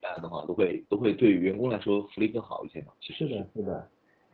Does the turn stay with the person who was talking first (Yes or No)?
No